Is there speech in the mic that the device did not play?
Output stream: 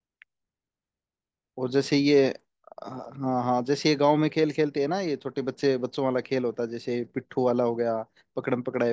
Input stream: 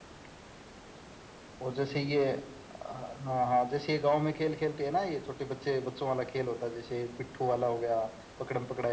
No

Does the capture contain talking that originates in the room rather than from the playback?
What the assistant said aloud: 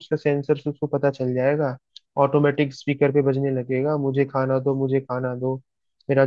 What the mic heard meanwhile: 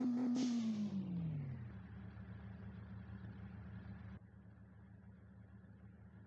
No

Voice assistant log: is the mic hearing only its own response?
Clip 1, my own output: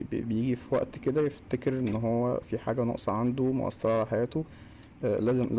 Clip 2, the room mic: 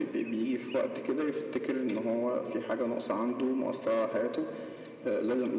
Yes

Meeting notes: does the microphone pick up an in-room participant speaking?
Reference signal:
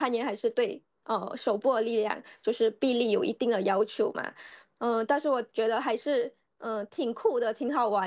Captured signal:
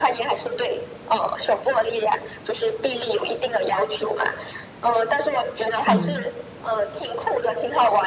Yes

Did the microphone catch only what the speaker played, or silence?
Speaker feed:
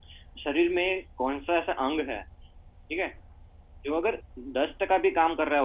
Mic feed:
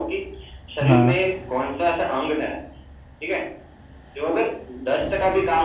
No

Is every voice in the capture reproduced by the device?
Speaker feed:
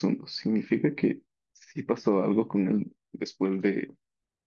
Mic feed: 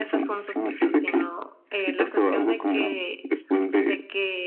No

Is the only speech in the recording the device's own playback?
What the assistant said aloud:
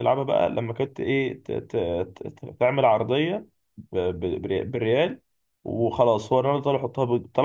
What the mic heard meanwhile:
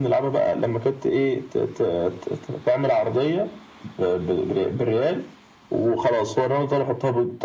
Yes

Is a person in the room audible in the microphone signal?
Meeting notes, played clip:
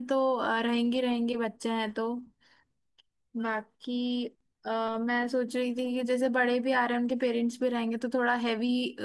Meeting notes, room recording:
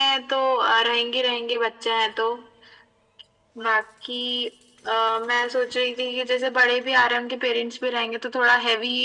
No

